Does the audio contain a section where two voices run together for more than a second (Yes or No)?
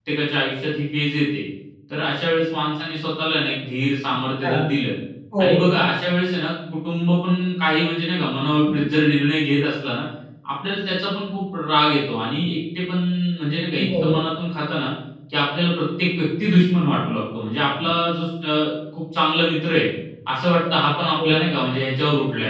No